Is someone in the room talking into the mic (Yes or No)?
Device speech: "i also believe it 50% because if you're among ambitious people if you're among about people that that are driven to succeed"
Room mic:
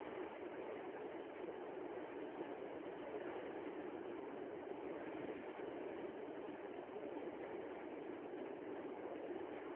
No